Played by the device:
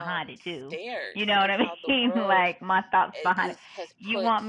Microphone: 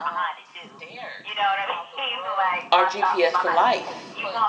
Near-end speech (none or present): present